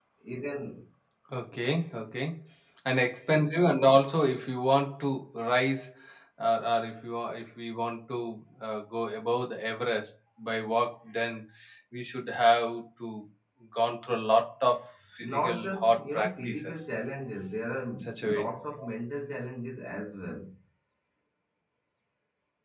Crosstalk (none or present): present